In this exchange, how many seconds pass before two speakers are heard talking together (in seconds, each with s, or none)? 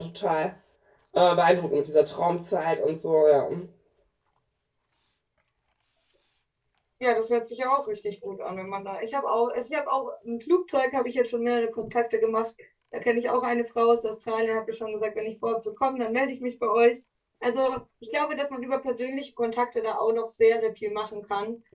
none